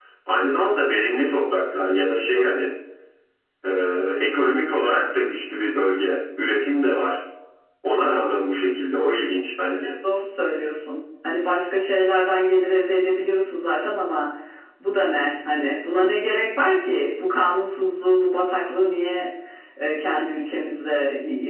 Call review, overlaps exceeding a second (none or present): none